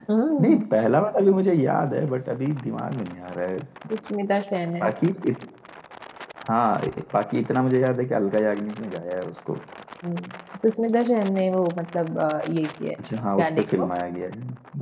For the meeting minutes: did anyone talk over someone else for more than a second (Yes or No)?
No